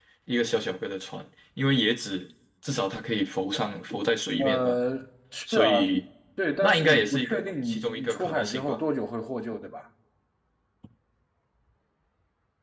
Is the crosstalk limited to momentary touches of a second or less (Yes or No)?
No